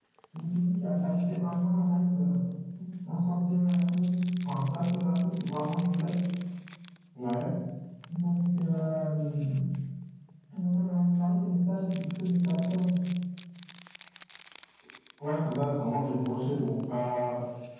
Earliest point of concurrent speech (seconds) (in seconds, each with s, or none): none